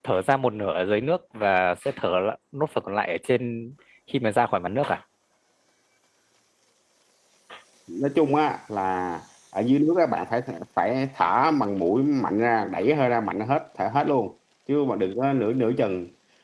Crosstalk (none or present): none